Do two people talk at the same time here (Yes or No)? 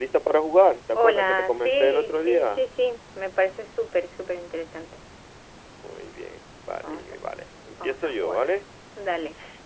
Yes